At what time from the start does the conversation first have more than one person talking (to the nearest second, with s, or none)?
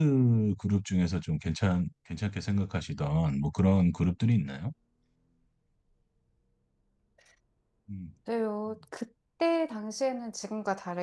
none